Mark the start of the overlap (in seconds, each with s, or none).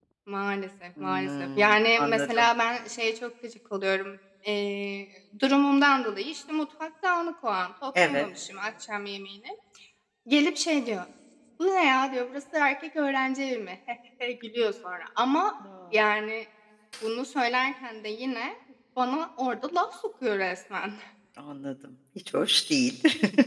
1.0 s